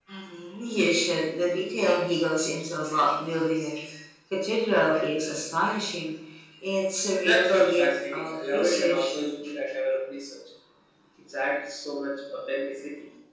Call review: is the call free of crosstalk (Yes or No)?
No